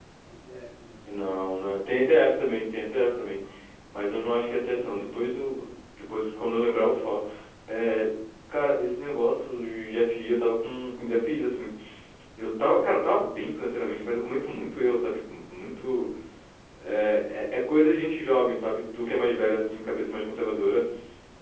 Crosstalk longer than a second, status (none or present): none